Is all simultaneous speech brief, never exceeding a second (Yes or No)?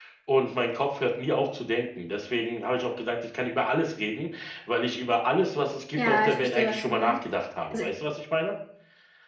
No